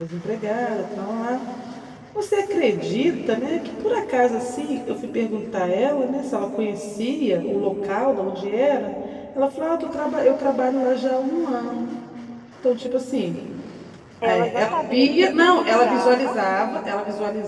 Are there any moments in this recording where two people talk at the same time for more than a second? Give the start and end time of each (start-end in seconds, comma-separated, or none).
14.2-16.3